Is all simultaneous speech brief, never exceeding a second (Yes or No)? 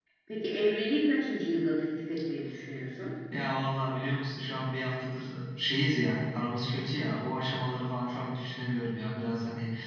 Yes